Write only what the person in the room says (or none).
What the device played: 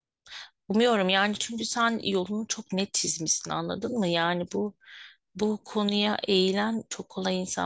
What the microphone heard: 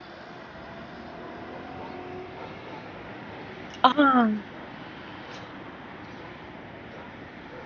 Aa.